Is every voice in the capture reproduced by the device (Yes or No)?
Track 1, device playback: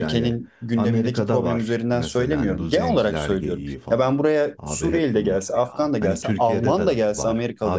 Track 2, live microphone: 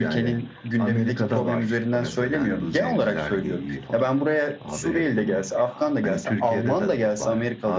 Yes